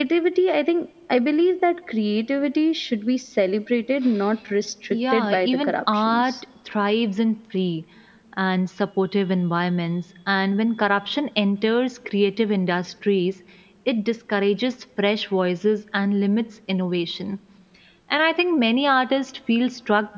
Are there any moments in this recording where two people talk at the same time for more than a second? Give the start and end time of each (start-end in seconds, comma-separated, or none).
4.9-6.3